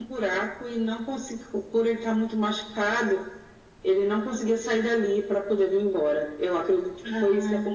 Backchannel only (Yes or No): Yes